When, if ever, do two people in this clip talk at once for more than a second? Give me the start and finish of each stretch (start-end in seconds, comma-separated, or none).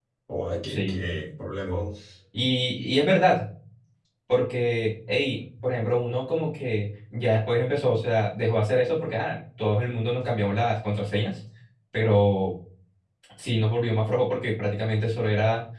none